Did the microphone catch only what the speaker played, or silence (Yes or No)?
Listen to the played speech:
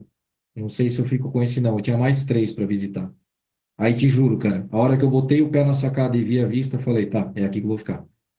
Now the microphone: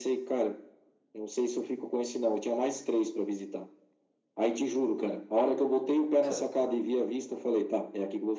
No